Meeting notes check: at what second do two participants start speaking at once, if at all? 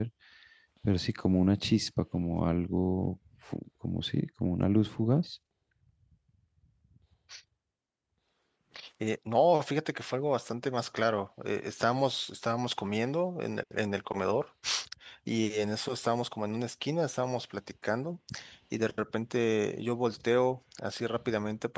none

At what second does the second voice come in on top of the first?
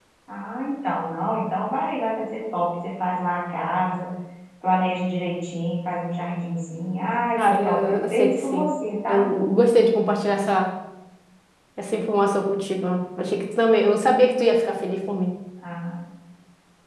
7.4 s

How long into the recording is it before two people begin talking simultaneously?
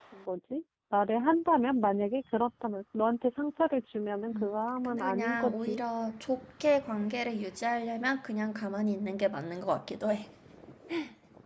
4.3 s

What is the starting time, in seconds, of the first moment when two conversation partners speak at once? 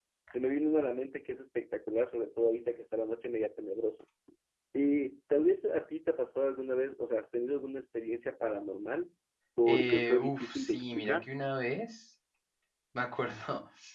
9.7 s

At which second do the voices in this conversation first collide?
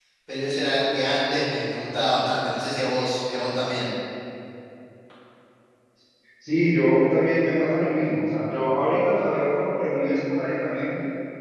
none

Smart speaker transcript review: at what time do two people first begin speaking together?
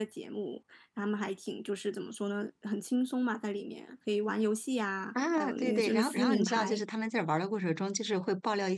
5.2 s

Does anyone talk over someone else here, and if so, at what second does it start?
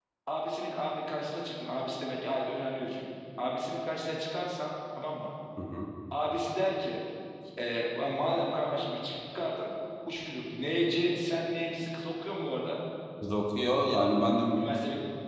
none

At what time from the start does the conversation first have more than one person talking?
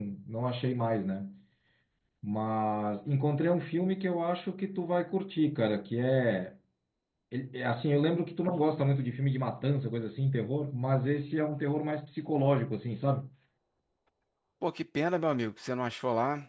none

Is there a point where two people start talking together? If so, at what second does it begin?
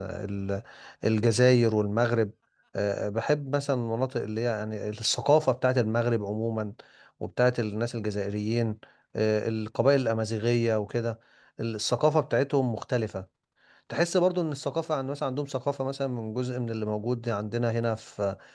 none

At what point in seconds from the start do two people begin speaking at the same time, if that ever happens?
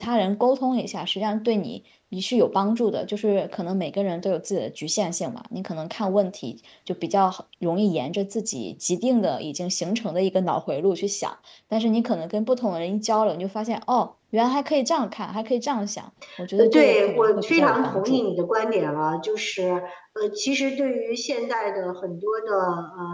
16.6 s

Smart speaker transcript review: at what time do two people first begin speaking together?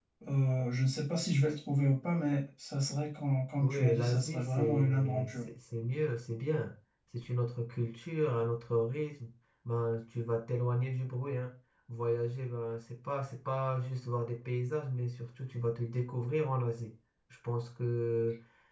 3.6 s

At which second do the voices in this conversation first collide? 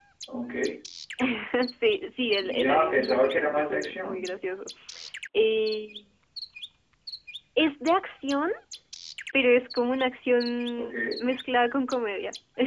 2.6 s

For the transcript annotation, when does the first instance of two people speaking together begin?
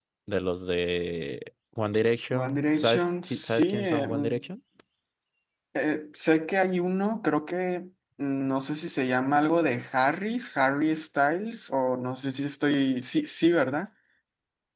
2.3 s

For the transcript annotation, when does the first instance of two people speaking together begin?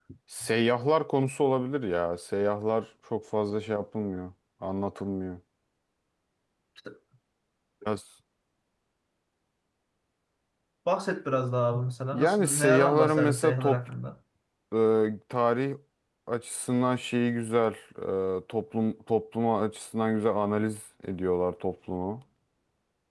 12.1 s

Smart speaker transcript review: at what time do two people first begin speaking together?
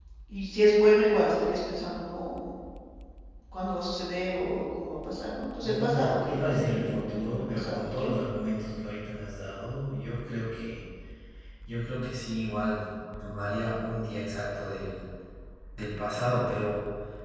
5.6 s

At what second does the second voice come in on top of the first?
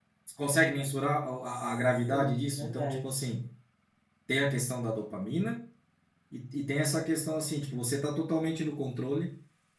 1.7 s

